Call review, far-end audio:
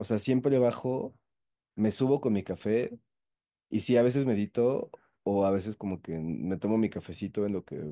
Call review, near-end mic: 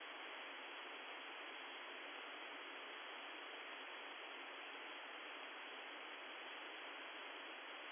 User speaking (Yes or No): No